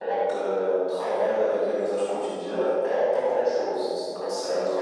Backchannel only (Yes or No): Yes